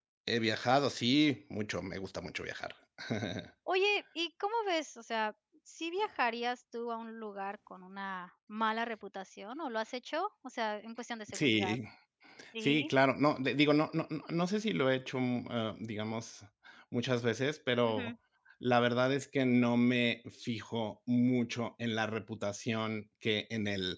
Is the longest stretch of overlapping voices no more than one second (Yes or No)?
Yes